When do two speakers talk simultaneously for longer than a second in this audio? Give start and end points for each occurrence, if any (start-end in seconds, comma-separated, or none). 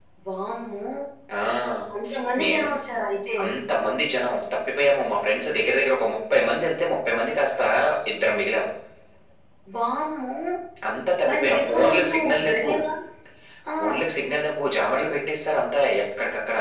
11.3-12.7